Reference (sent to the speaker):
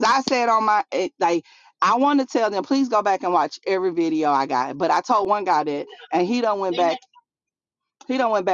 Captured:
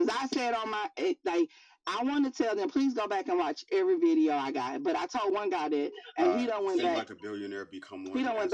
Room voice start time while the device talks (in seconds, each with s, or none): 6.2 s